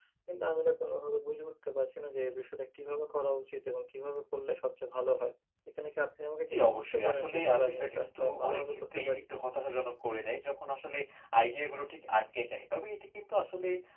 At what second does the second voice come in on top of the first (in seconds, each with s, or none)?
6.5 s